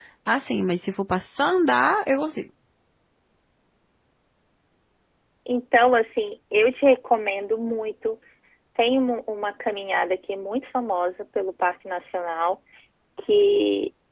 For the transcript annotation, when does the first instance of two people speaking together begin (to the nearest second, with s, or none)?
none